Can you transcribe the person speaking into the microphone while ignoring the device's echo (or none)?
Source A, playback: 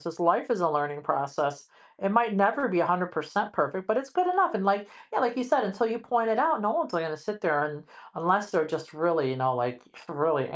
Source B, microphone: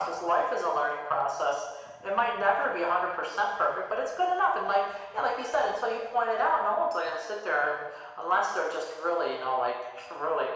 none